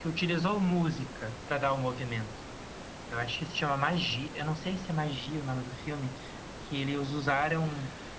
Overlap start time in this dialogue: none

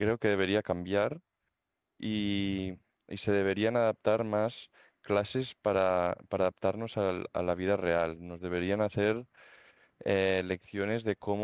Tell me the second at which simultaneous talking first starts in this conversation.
none

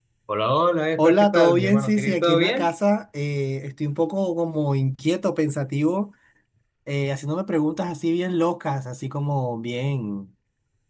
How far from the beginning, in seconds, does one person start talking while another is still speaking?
1.0 s

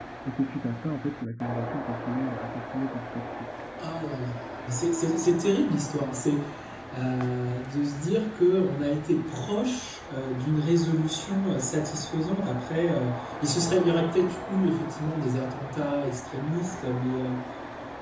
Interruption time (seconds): none

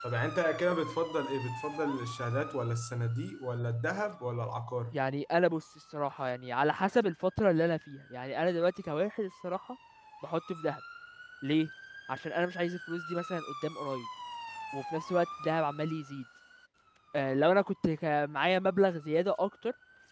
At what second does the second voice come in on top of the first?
none

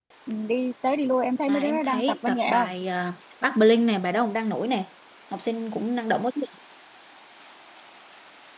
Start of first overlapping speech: 1.5 s

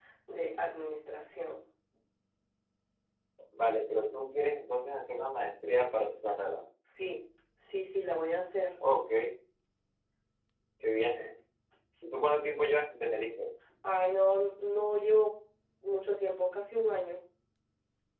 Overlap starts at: none

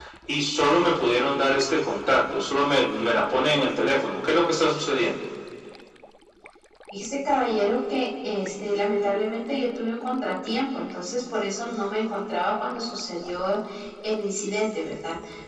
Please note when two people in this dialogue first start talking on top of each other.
none

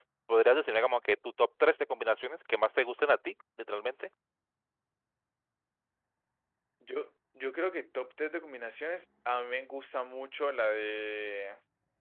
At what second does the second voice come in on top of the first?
none

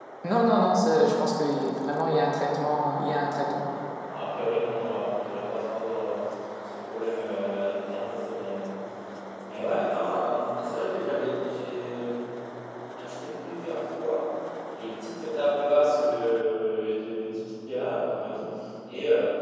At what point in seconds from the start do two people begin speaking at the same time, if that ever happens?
none

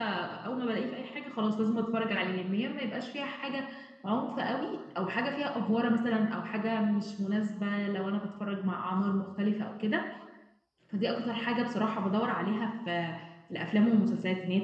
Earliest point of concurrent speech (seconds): none

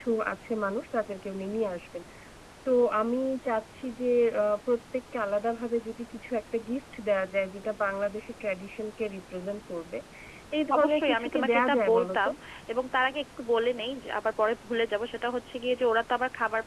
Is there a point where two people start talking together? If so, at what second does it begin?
10.8 s

